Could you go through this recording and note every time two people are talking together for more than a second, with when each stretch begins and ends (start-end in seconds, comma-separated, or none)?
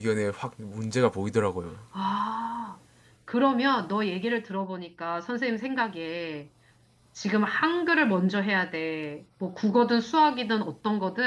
none